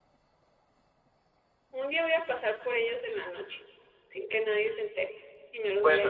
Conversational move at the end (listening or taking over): taking over